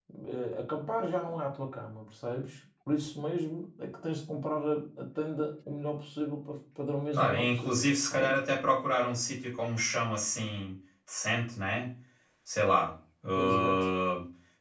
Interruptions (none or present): present